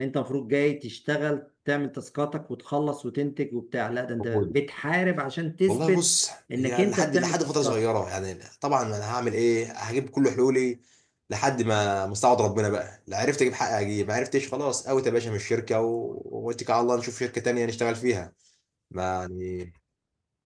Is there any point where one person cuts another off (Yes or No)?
Yes